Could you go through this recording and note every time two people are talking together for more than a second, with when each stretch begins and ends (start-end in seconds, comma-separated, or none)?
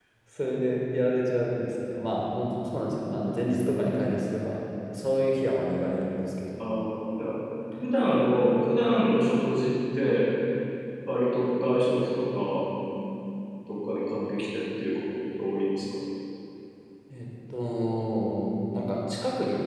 none